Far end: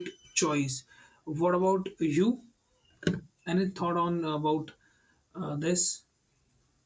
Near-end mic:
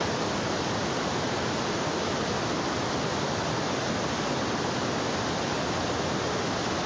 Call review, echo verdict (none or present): none